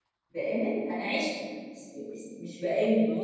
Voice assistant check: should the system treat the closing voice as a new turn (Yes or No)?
No